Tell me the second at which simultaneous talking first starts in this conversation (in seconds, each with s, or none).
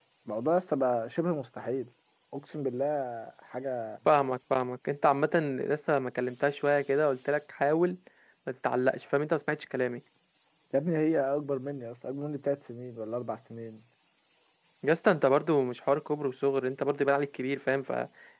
none